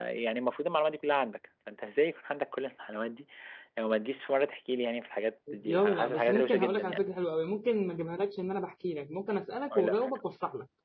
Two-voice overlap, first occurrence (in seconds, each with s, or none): 5.6 s